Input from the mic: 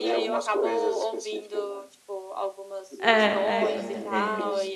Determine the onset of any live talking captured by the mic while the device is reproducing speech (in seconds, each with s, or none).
3.0 s